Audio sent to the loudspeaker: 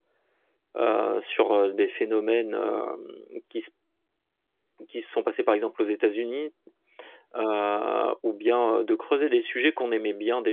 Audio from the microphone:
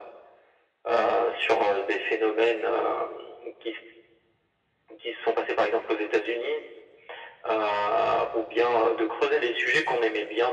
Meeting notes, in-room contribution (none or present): none